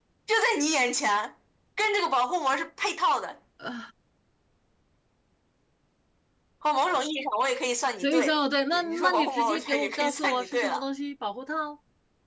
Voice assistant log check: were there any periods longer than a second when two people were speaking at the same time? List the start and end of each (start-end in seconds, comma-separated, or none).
8.7-10.8